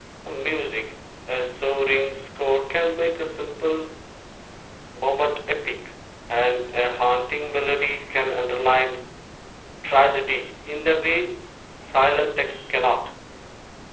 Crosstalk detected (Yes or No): No